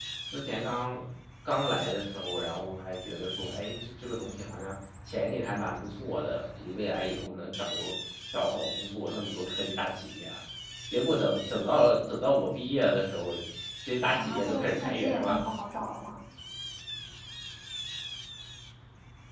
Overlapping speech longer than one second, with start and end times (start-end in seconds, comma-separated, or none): 14.2-15.4